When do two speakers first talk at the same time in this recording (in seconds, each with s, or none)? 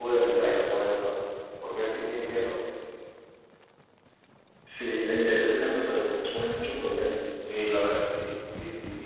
none